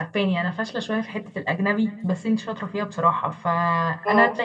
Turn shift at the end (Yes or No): No